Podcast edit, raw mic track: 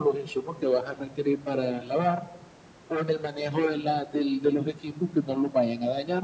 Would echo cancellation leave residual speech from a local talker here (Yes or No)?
No